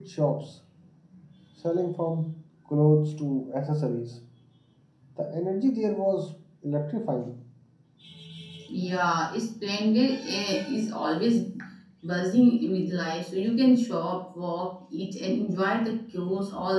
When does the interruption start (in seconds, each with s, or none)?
none